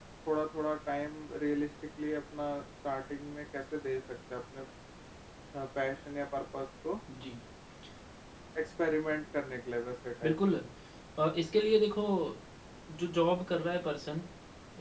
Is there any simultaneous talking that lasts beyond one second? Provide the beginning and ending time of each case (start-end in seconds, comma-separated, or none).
none